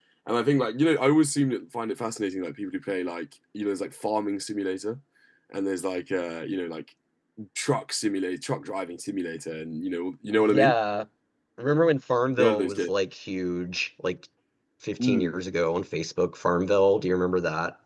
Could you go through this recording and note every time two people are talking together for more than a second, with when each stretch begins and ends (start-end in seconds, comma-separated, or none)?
none